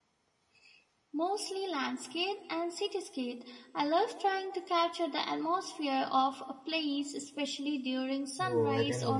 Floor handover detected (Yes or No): Yes